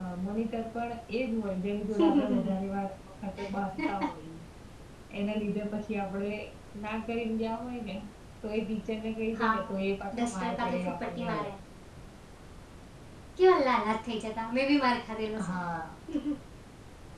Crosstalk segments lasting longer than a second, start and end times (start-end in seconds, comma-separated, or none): 10.2-11.5